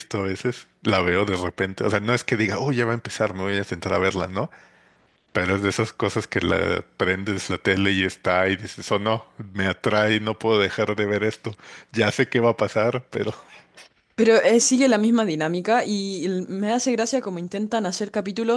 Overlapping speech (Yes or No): No